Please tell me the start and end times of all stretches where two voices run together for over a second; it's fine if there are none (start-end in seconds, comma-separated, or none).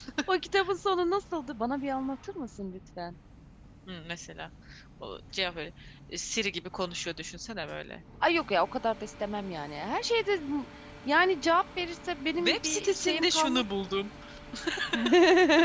12.4-13.6